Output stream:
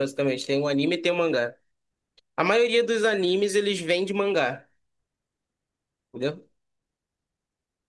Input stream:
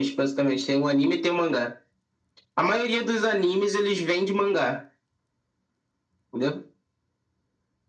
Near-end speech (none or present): none